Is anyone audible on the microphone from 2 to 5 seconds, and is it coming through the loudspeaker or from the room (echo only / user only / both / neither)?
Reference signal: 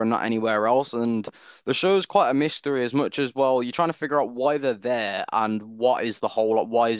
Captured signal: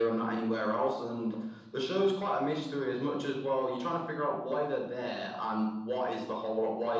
echo only